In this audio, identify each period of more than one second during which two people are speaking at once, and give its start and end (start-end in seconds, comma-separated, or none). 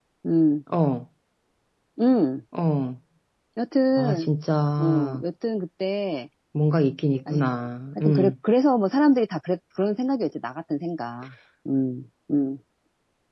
none